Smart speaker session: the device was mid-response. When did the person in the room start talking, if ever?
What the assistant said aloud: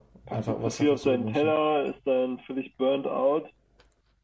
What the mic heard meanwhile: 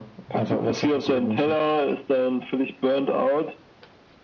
none

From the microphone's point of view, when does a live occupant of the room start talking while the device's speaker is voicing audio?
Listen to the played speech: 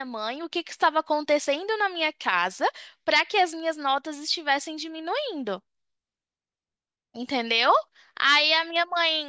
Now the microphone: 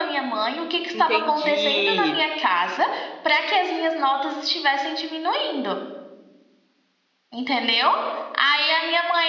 0.9 s

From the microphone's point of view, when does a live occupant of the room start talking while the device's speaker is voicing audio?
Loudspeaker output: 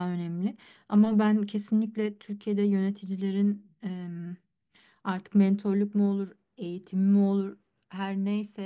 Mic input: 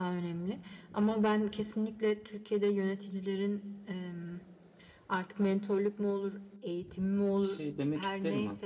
7.4 s

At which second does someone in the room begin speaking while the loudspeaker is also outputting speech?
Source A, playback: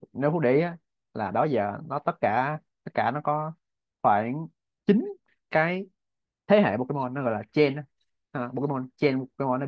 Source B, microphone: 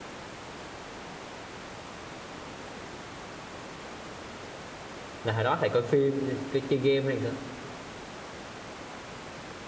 5.2 s

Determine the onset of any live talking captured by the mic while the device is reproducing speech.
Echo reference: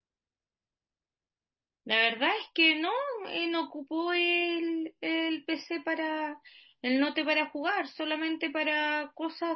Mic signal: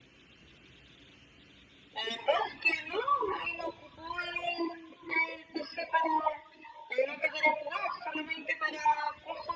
none

